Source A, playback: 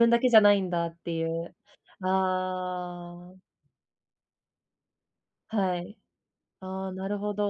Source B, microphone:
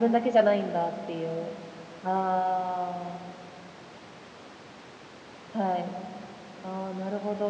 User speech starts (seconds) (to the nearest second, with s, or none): none